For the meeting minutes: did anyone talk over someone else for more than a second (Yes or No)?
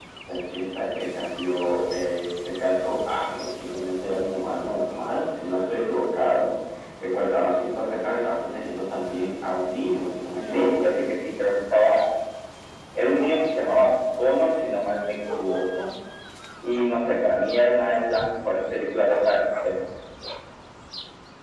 No